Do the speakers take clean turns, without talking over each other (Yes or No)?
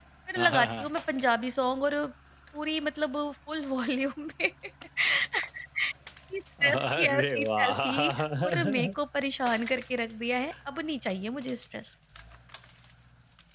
No